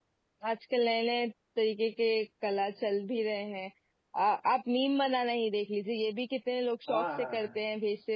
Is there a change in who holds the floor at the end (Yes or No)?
No